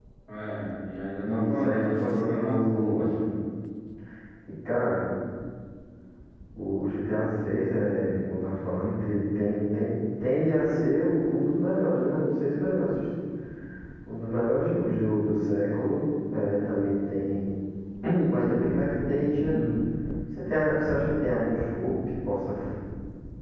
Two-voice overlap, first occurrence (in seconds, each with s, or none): 1.2 s